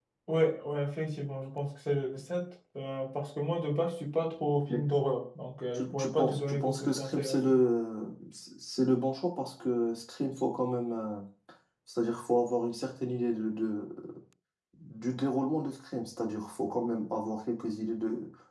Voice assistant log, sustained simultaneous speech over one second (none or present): present